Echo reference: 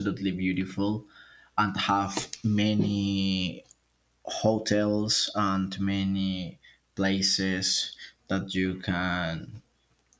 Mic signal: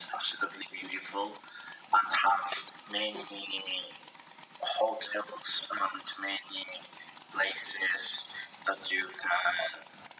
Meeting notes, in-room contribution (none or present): none